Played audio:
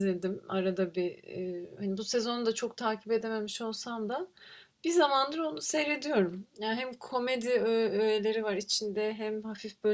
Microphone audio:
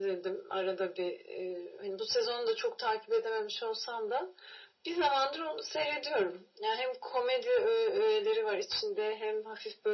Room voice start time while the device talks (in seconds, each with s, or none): none